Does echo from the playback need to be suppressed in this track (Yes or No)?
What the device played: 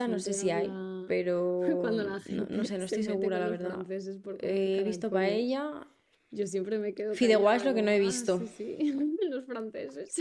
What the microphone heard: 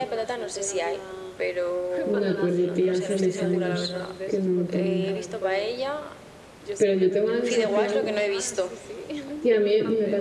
Yes